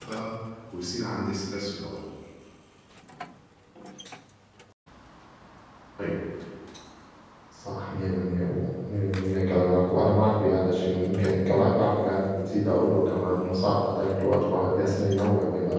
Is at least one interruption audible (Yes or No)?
No